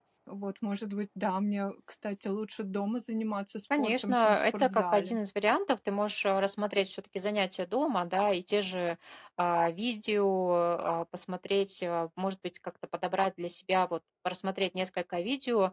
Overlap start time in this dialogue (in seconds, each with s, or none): 3.7 s